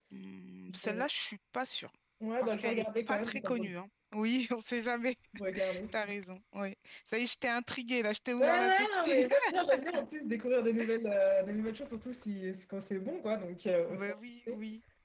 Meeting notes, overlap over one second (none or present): present